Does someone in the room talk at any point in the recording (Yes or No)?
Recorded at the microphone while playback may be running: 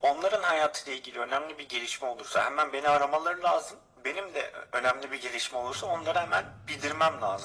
No